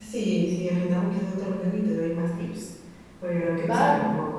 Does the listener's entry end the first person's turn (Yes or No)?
Yes